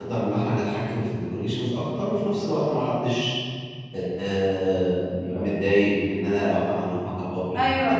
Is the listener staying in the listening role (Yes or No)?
No